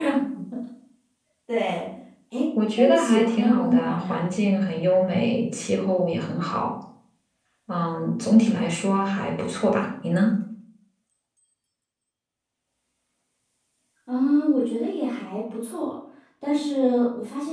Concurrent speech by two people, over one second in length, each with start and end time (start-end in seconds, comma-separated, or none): 2.8-4.2